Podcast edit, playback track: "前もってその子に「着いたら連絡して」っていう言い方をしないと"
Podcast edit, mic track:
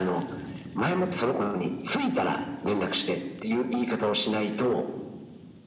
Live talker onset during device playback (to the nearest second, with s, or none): none